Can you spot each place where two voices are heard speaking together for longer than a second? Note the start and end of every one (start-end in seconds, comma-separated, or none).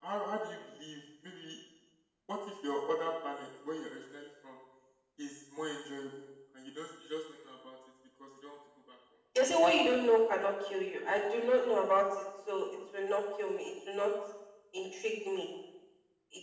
none